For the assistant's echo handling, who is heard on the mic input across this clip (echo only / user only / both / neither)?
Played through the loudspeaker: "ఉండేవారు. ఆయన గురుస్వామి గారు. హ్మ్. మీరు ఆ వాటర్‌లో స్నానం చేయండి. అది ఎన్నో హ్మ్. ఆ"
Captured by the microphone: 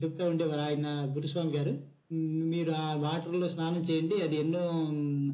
echo only